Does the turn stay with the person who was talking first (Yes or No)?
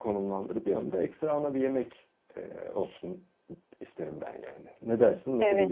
No